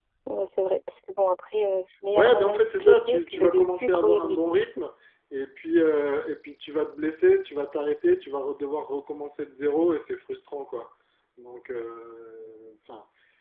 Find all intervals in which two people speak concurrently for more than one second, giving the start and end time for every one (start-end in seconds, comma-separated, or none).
2.1-4.4